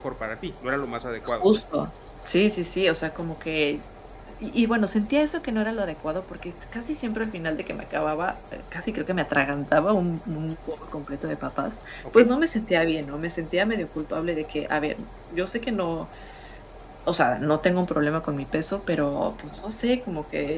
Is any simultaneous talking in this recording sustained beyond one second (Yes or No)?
No